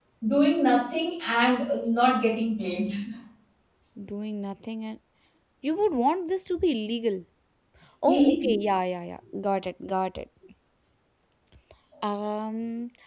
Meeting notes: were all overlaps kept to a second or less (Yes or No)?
Yes